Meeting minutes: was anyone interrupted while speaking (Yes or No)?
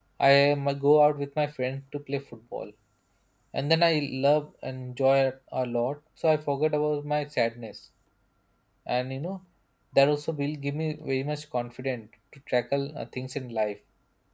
No